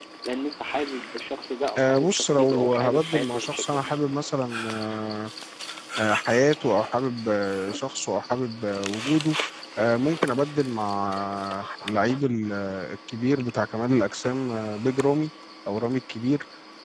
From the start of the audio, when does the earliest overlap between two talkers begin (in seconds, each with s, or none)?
1.8 s